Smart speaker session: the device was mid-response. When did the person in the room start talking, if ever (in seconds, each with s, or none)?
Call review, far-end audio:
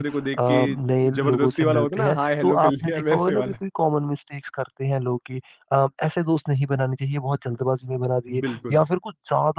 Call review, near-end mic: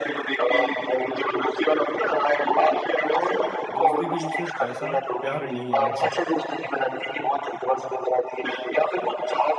3.8 s